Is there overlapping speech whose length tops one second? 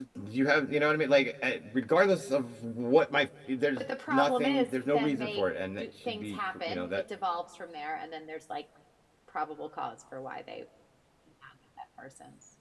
Yes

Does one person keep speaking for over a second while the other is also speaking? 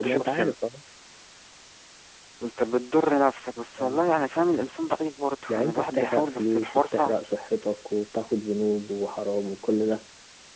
Yes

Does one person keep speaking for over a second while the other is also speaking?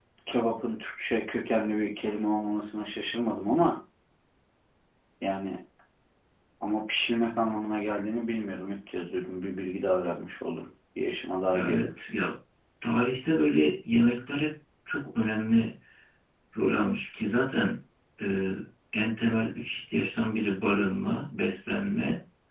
No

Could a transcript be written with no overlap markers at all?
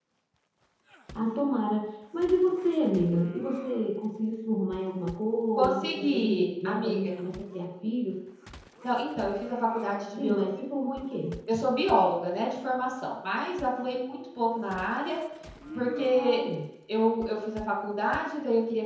No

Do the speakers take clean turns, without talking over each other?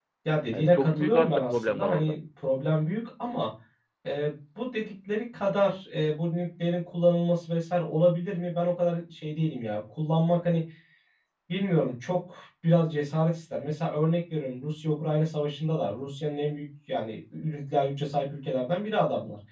No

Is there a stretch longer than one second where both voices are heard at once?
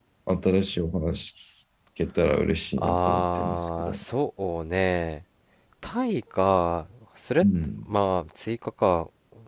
Yes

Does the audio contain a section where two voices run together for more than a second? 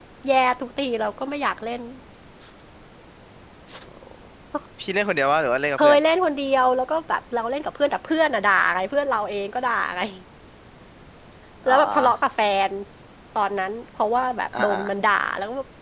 No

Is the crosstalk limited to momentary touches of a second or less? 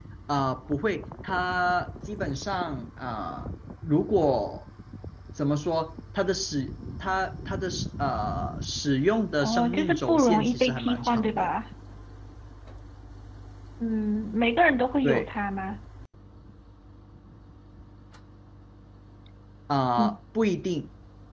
No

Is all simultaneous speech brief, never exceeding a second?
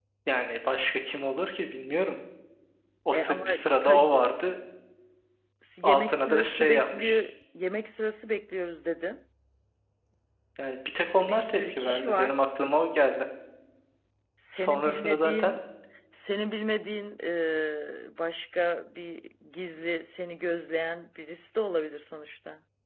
No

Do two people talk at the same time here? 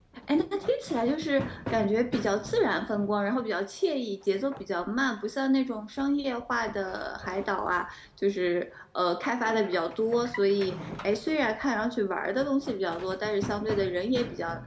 No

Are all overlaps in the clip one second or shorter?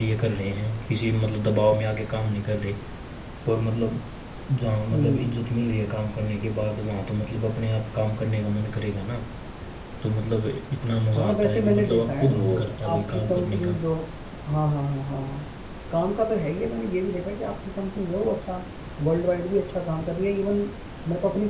No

